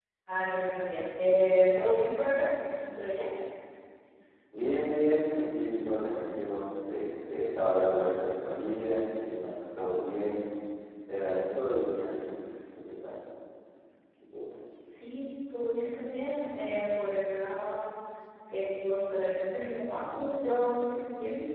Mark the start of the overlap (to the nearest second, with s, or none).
none